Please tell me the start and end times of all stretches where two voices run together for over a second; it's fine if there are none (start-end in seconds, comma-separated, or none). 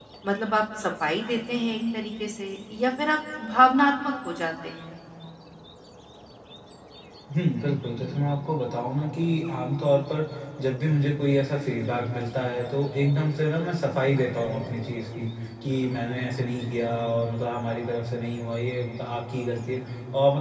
none